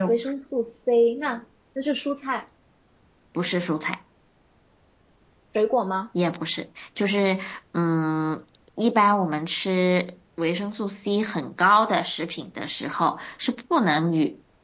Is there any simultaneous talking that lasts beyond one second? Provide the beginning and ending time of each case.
none

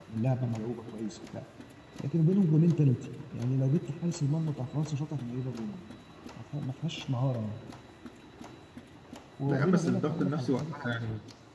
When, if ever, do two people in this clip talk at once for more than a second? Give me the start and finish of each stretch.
9.5-10.7

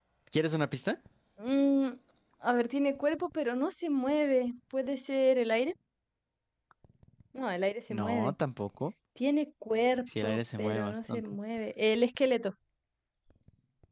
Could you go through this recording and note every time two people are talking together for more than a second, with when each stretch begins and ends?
10.1-11.3

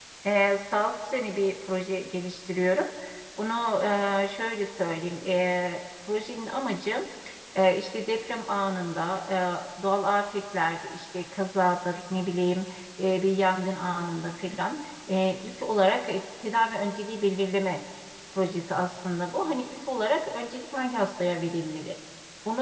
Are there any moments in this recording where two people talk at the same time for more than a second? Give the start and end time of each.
none

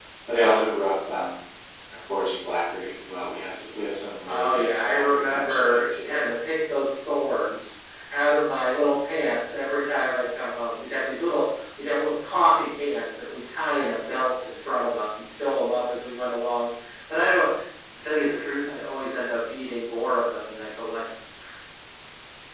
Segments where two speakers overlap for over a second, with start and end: 4.2-6.0

